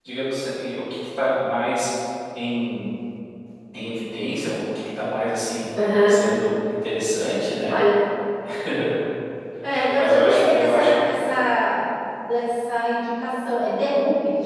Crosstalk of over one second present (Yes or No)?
Yes